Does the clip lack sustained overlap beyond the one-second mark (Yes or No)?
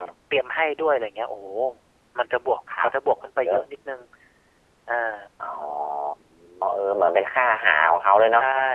Yes